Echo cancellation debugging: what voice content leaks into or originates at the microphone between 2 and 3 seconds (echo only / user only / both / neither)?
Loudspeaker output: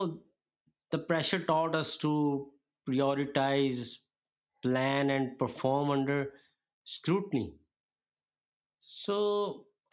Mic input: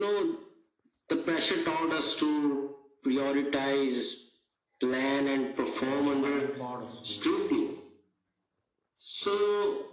echo only